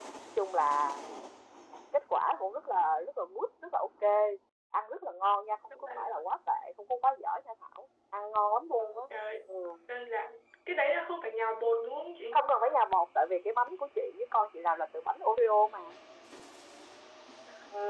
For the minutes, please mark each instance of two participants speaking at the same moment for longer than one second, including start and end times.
none

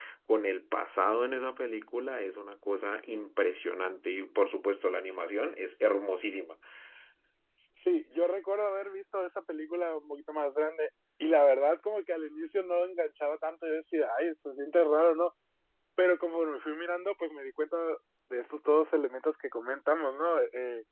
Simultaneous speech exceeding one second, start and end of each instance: none

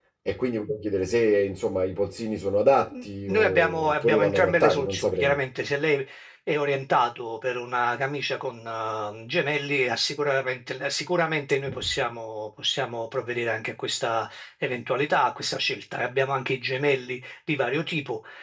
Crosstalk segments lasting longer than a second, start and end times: 3.0-5.4

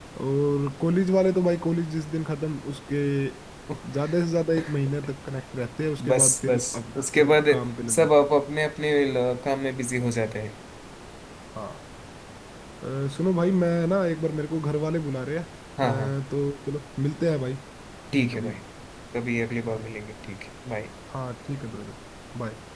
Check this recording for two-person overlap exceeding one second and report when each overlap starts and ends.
6.1-7.4

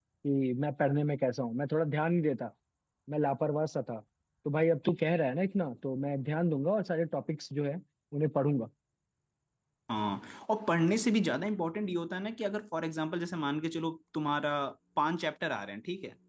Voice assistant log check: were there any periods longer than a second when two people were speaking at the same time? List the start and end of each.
none

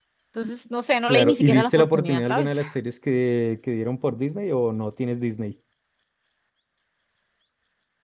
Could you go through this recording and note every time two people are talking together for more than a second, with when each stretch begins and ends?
1.1-2.6

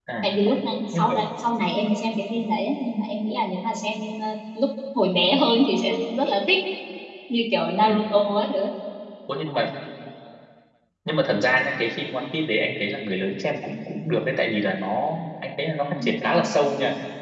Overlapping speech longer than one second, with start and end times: none

